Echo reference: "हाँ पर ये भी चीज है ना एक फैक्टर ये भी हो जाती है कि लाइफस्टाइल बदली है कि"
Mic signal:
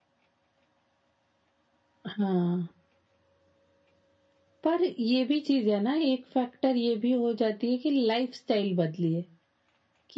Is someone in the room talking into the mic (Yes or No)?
No